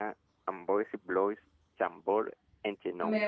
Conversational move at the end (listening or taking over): taking over